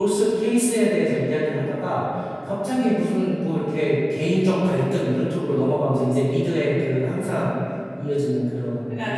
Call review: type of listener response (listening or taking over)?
taking over